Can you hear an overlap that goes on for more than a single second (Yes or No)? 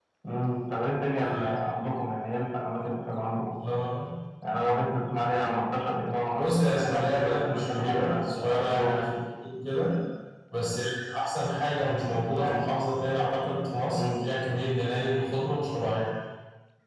Yes